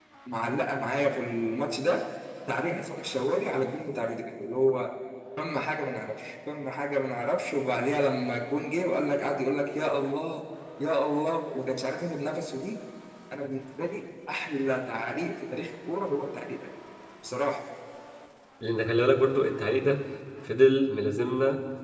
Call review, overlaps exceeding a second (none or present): none